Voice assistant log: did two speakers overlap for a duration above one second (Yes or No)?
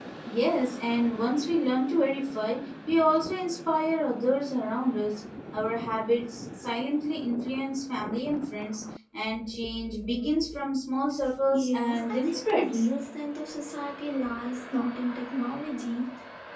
Yes